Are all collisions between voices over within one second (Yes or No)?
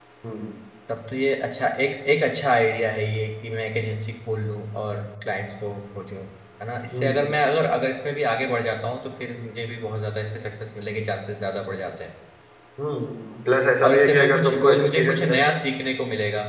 No